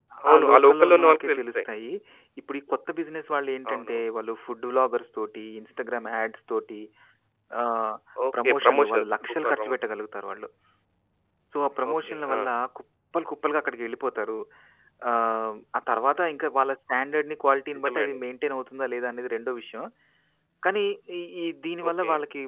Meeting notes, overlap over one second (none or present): present